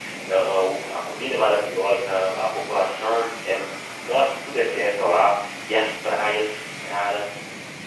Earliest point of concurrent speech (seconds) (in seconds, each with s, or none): none